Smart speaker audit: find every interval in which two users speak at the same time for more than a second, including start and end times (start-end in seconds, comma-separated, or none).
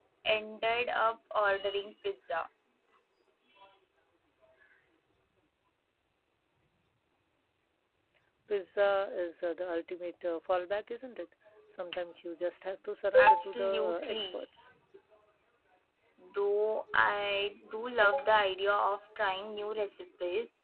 13.2-14.4